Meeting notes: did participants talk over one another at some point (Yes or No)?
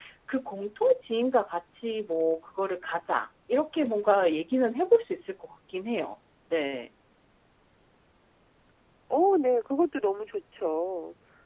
No